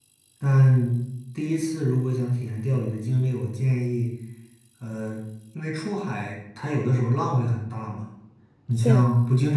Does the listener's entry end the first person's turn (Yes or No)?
No